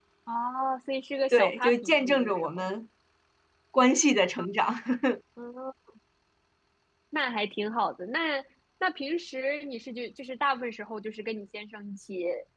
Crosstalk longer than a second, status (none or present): present